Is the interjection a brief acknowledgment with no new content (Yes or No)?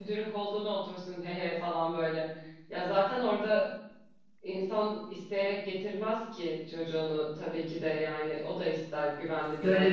No